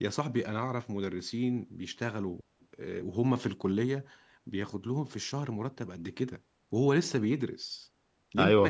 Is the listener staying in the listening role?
No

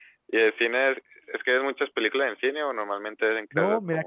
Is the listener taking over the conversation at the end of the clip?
Yes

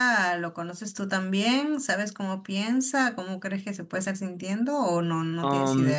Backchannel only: No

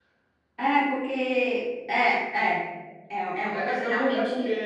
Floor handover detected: Yes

